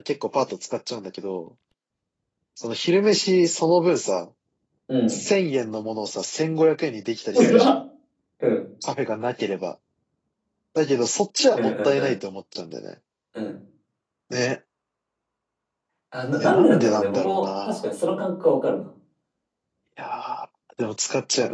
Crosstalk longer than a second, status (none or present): present